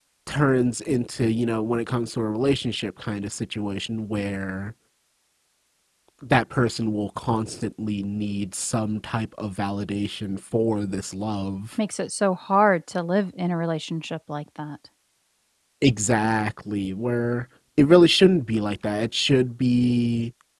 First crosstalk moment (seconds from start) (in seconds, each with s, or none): none